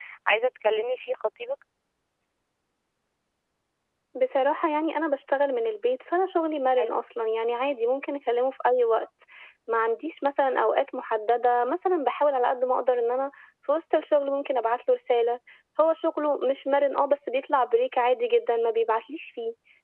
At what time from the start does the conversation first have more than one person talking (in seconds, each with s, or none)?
none